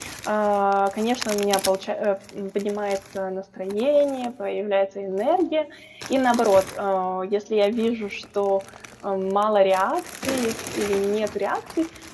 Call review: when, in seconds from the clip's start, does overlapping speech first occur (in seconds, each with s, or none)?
none